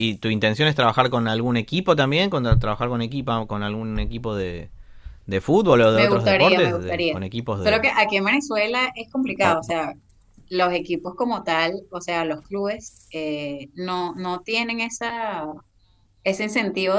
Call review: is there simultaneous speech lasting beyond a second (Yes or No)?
Yes